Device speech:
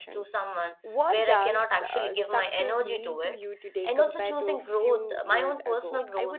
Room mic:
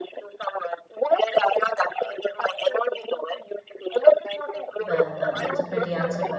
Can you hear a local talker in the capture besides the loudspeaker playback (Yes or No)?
Yes